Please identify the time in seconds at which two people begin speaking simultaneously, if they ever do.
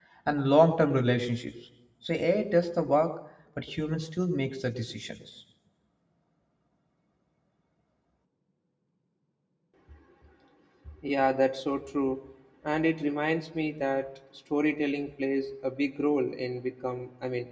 none

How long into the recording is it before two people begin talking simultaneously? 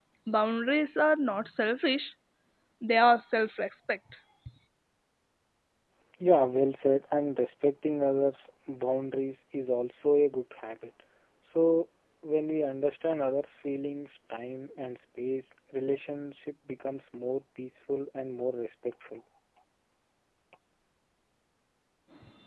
none

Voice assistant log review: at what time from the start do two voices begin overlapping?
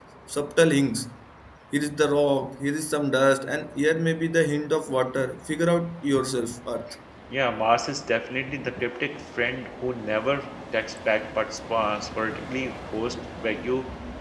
none

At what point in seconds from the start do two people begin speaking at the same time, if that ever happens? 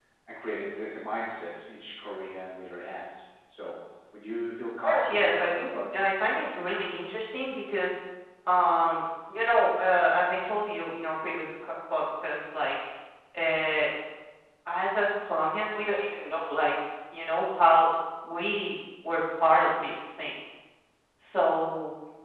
4.8 s

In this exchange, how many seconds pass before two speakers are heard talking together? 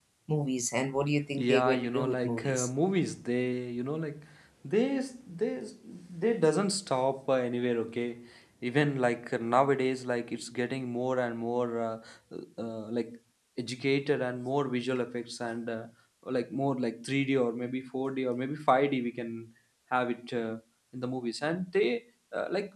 1.4 s

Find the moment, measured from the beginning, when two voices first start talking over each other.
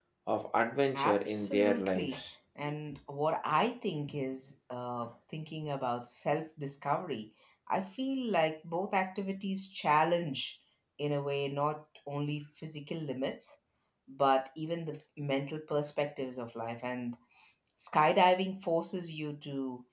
0.9 s

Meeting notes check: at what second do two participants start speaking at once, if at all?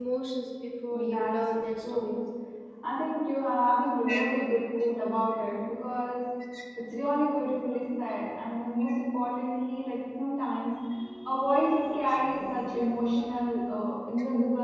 0.9 s

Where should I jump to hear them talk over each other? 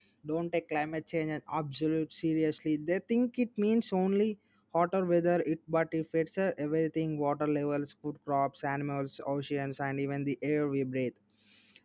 none

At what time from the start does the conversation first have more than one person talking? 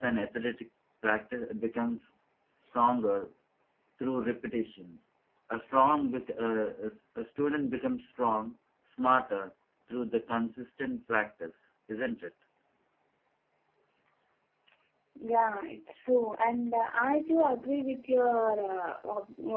none

